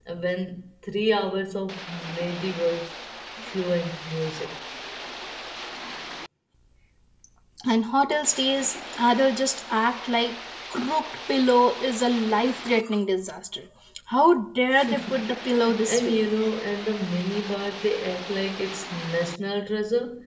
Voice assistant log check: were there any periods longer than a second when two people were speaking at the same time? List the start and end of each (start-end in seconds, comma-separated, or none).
14.9-16.3